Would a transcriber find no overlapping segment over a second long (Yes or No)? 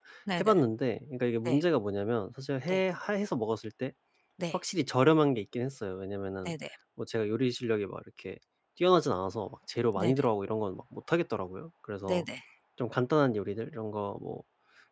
Yes